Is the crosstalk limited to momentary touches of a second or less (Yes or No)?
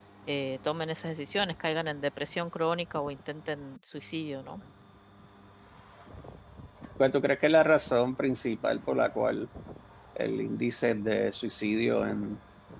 Yes